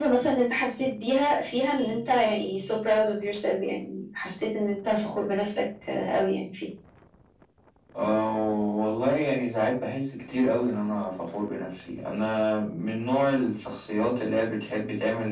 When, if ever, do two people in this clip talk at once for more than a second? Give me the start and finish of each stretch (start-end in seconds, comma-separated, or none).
none